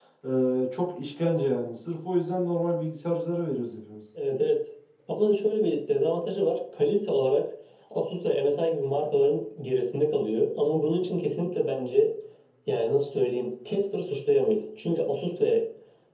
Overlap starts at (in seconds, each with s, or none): none